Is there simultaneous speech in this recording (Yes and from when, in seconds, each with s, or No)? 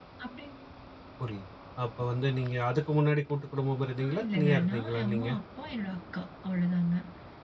Yes, from 4.0 s